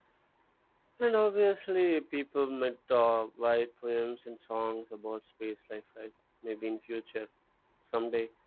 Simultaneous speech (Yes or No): No